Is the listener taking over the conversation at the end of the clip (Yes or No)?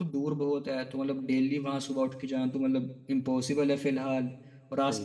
No